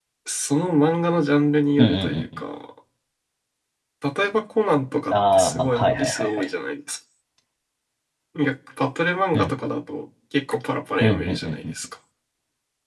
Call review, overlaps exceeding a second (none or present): present